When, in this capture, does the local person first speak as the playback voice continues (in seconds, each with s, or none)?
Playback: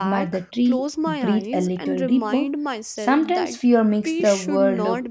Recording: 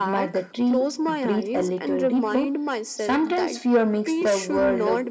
none